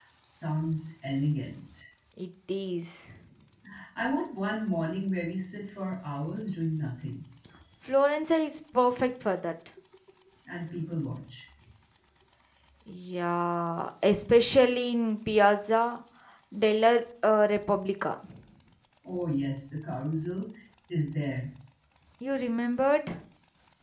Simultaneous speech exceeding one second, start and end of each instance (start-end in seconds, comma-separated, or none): none